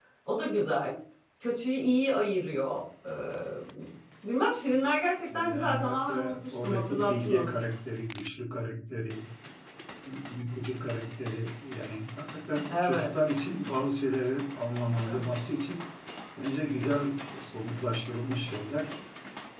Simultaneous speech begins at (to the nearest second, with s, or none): 5 s